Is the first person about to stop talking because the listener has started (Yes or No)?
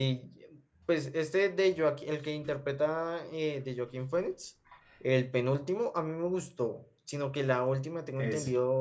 No